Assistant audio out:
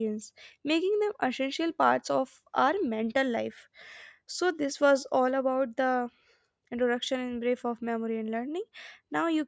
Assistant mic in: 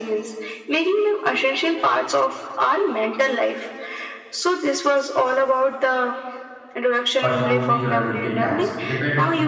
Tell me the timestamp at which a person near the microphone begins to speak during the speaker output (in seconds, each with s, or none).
7.2 s